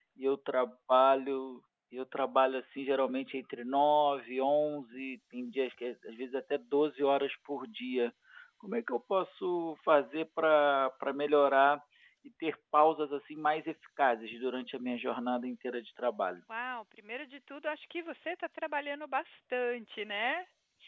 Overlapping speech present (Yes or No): No